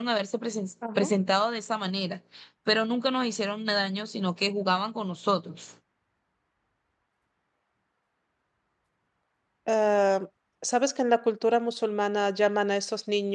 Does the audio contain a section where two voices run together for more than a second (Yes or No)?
No